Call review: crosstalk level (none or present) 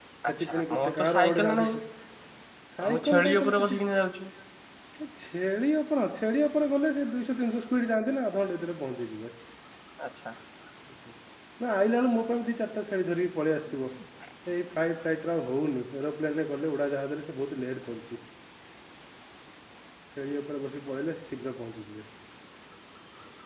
present